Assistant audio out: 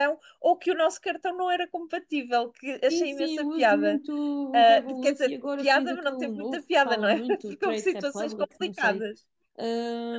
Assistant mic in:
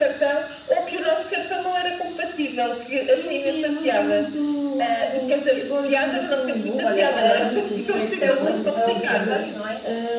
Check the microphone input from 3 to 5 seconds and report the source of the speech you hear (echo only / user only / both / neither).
echo only